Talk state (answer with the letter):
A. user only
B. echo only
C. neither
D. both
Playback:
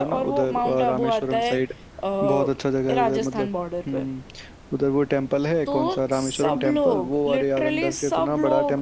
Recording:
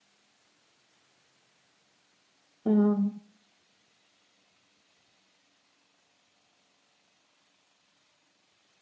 A